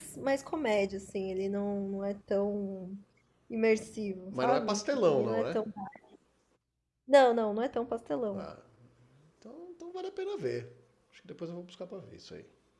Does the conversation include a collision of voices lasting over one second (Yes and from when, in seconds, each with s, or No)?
Yes, from 4.3 s